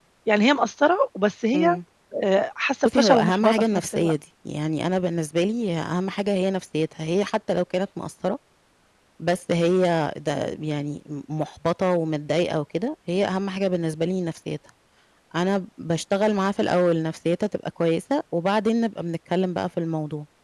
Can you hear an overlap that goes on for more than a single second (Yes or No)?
Yes